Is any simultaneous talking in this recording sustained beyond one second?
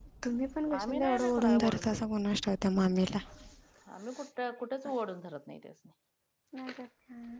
Yes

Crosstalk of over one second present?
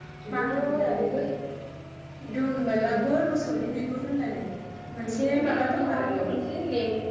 Yes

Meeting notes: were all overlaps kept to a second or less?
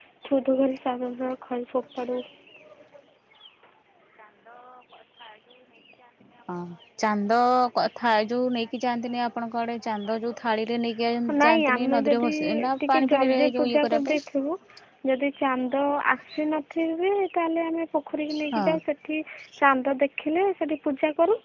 No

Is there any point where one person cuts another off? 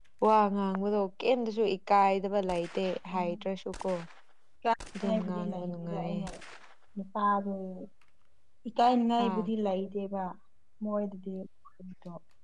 Yes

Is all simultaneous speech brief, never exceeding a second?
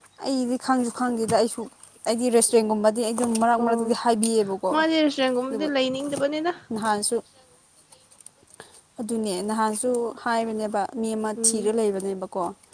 Yes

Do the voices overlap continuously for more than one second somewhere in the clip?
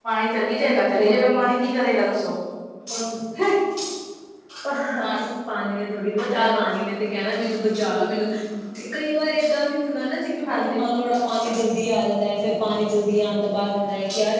No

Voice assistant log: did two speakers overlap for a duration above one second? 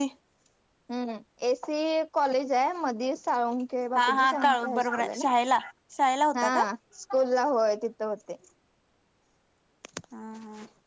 Yes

